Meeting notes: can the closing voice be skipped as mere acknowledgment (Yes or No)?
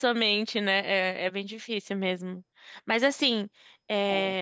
Yes